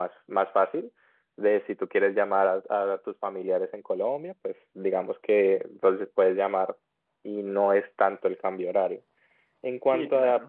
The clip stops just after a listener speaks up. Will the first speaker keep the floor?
Yes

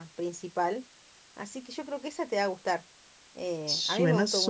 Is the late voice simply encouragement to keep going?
No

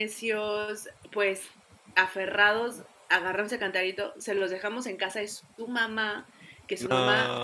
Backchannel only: Yes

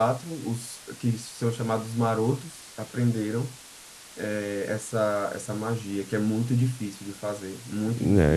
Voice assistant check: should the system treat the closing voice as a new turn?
Yes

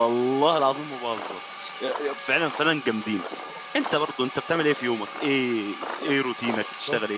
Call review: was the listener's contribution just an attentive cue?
No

